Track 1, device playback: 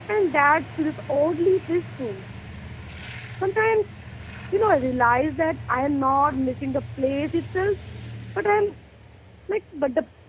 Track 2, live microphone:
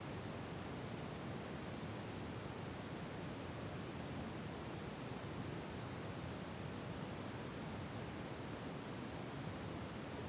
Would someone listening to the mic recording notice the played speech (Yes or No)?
No